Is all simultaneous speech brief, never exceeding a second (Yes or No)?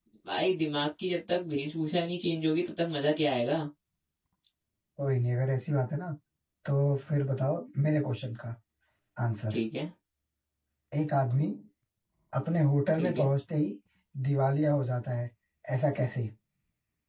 Yes